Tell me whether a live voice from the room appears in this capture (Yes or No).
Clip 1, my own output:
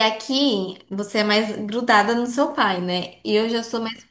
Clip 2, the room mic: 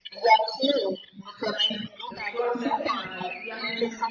Yes